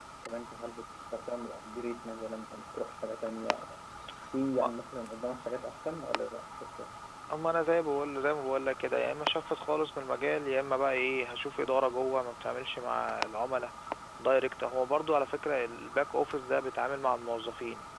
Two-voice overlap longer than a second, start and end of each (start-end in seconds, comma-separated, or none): none